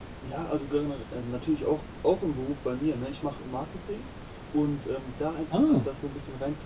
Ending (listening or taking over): listening